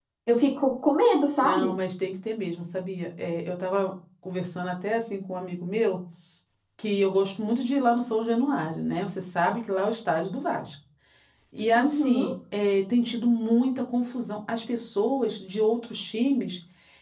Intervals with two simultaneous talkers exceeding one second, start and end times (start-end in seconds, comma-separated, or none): none